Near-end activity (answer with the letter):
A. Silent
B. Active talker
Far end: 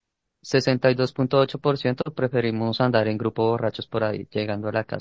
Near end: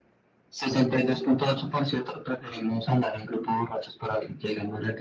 A